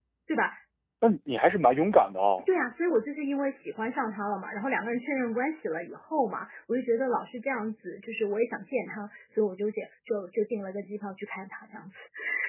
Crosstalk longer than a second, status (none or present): none